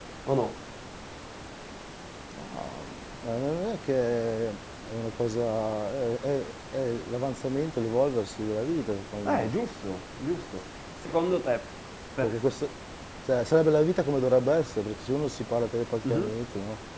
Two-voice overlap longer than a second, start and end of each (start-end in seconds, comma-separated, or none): none